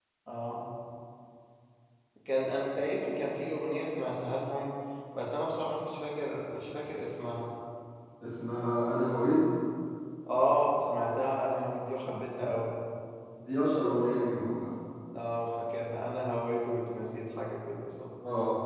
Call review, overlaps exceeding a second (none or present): none